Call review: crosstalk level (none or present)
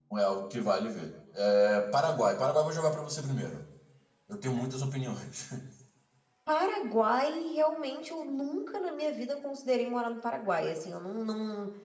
none